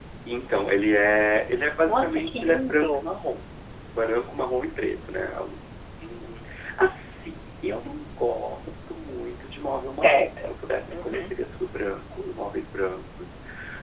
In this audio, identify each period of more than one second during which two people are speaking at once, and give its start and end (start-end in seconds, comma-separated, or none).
1.9-3.1